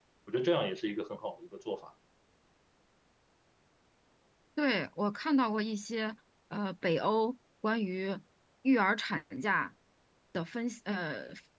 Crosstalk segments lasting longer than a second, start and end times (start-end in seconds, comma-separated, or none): none